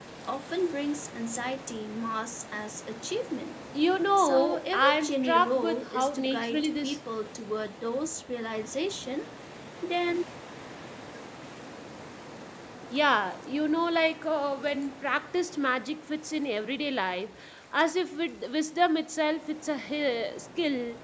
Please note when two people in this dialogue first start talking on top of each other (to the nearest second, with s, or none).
4 s